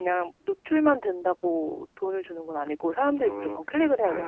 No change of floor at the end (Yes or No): No